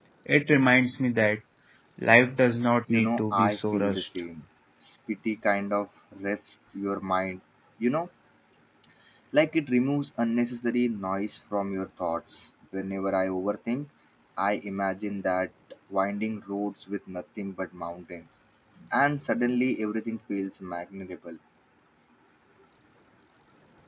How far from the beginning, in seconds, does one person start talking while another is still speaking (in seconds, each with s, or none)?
2.9 s